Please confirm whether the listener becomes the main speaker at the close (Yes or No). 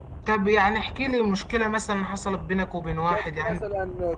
Yes